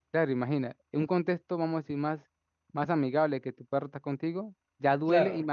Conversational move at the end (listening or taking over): listening